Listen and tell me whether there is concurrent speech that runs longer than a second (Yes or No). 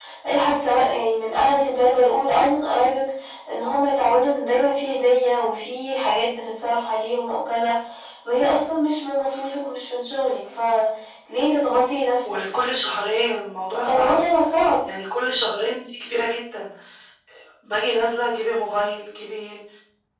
No